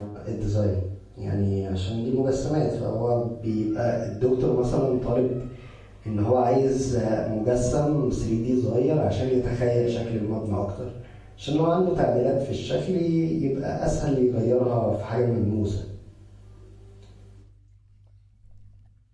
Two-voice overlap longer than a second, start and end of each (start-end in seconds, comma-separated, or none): none